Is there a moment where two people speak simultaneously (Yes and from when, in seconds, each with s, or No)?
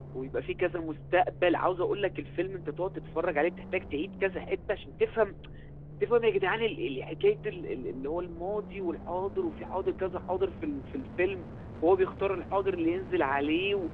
No